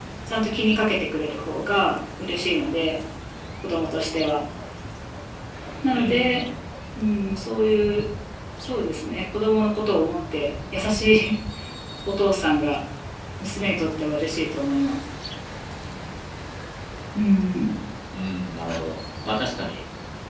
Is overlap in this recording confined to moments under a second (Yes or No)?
Yes